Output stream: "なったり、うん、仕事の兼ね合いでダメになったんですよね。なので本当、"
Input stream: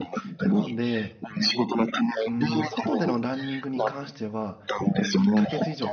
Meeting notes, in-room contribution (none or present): present